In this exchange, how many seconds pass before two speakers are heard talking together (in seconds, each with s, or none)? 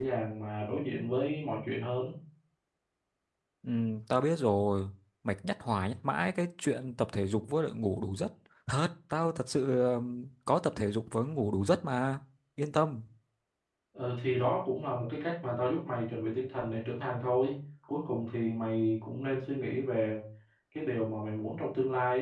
none